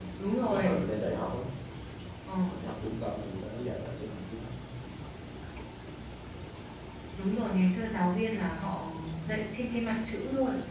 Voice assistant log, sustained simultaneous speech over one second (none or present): none